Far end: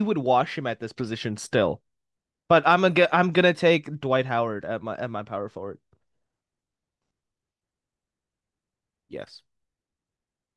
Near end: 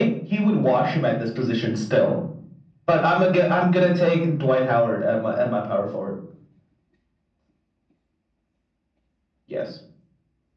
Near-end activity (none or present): none